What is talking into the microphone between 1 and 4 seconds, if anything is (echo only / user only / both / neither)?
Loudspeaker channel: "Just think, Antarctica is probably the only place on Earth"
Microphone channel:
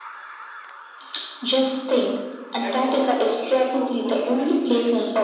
both